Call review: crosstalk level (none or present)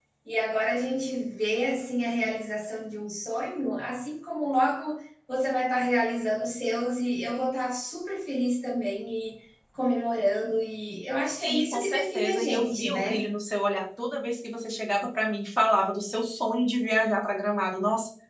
present